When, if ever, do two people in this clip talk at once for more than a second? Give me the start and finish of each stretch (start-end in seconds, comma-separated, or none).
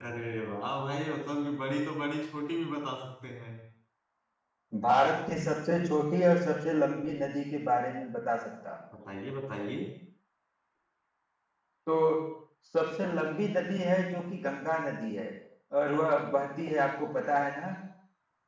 none